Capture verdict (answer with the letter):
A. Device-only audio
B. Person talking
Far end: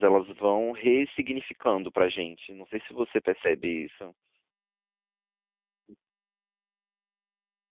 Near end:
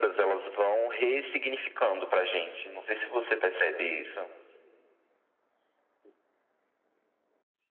A